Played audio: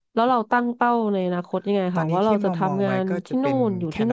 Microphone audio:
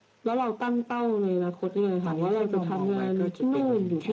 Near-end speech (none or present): none